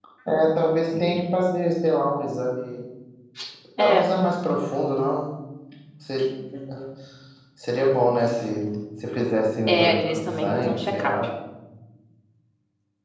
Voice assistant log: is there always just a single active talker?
No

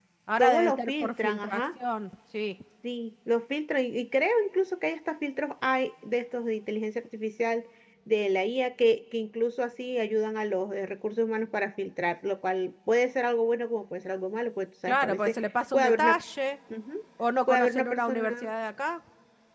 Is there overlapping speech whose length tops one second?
Yes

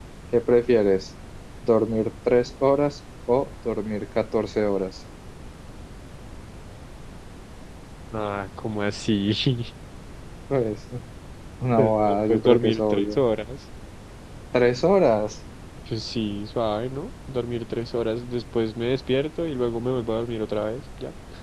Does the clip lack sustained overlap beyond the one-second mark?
No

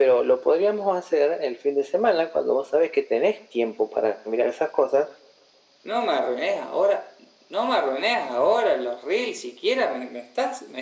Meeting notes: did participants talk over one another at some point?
No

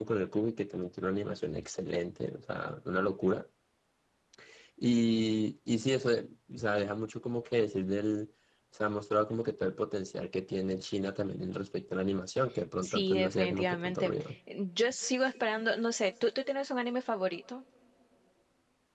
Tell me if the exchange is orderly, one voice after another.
No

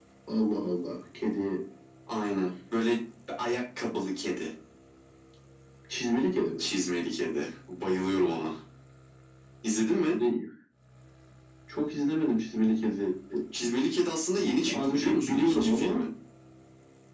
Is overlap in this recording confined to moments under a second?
No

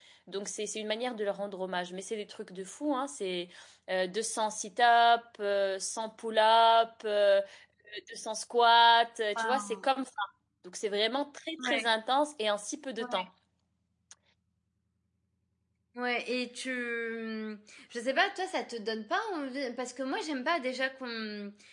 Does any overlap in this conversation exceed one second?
No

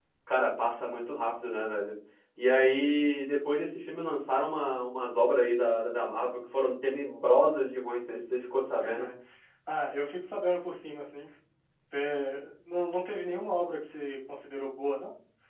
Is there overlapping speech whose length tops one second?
No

